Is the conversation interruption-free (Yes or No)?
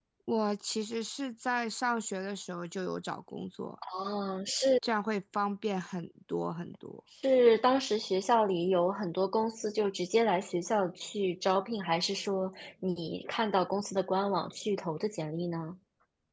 Yes